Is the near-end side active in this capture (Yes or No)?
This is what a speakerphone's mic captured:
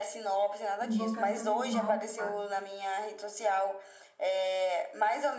Yes